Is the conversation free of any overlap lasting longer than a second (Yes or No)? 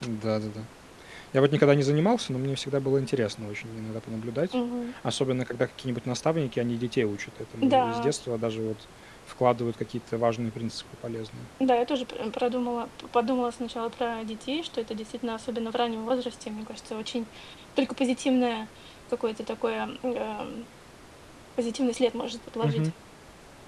Yes